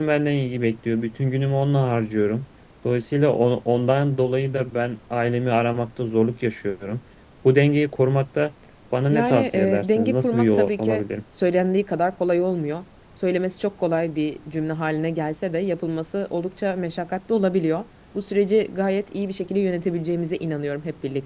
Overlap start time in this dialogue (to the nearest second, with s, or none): 9 s